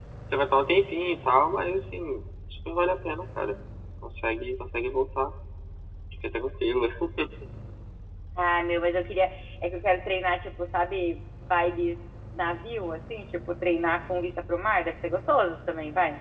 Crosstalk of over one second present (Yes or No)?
No